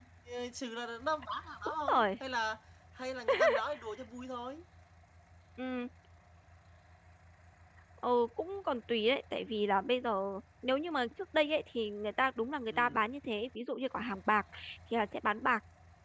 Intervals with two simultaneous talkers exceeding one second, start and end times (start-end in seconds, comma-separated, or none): none